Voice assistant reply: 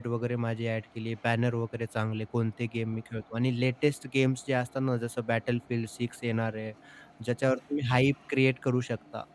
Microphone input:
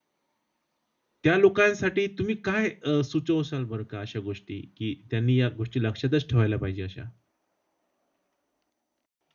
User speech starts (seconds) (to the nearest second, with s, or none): 1 s